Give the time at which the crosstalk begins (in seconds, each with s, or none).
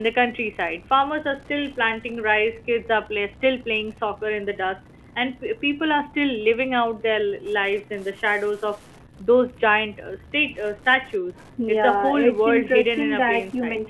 11.6 s